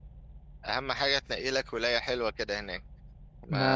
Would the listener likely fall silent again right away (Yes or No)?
Yes